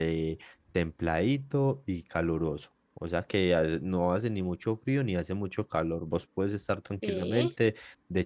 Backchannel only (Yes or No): Yes